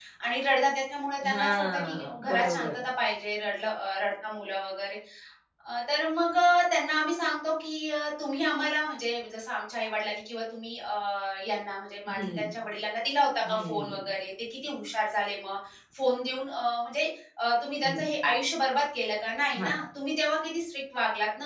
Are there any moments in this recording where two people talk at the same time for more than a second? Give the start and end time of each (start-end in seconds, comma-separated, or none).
1.3-2.7